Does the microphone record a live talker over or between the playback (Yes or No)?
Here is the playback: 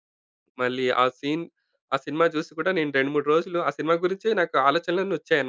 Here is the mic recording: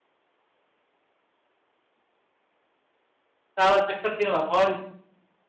Yes